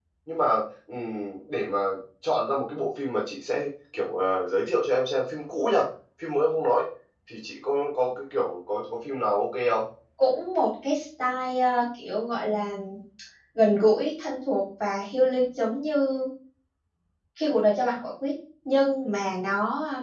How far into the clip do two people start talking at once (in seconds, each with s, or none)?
none